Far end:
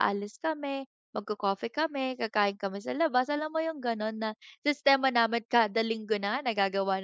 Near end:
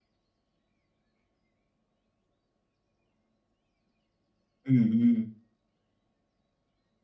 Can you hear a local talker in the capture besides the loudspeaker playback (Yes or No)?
Yes